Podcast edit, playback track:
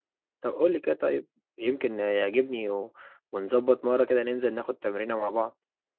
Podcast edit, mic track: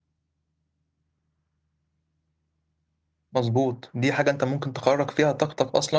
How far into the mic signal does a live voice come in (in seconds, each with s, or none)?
3.3 s